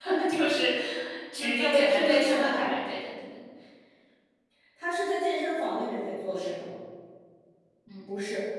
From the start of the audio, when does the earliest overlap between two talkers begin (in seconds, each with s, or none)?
1.4 s